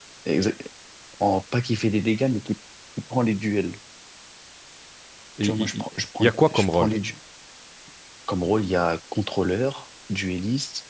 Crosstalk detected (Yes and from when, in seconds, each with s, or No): Yes, from 5.4 s